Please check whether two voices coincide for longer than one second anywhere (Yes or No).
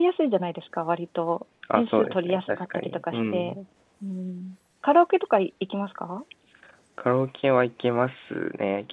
Yes